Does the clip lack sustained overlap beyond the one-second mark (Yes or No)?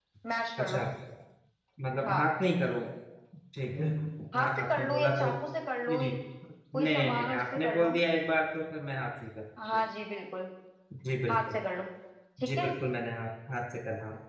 No